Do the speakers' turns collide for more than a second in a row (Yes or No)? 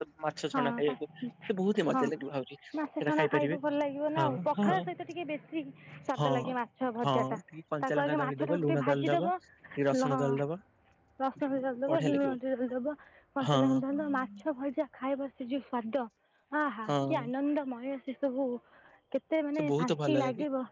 Yes